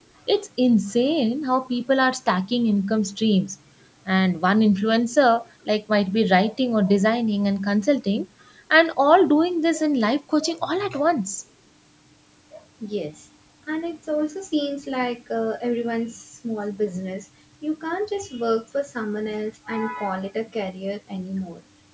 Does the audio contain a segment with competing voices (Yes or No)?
No